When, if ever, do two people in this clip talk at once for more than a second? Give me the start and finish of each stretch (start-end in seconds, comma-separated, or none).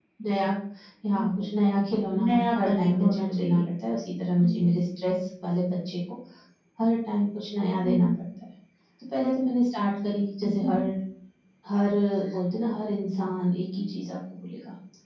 2.2-3.6